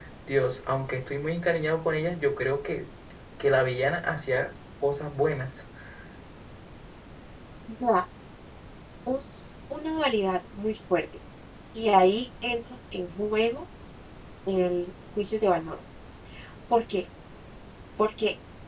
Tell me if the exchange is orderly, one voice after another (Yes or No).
Yes